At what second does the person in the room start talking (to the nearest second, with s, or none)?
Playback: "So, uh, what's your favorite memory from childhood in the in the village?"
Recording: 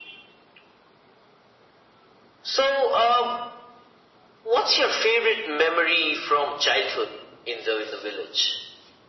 none